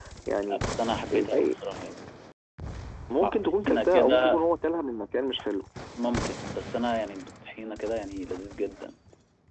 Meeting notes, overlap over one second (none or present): present